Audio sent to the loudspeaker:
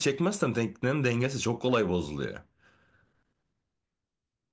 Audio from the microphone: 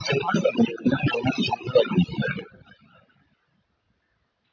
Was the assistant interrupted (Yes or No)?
No